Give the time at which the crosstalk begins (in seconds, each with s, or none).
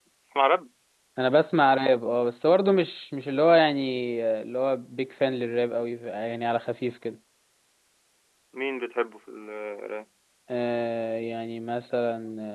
none